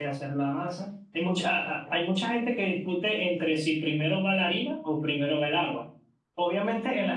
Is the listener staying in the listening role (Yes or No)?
Yes